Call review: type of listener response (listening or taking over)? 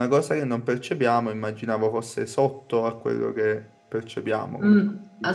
taking over